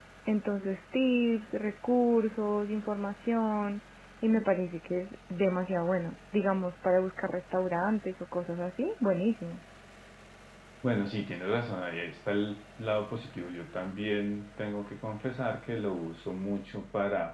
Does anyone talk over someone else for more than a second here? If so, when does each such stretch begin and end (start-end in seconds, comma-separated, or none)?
none